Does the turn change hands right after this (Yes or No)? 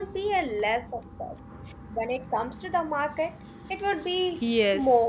Yes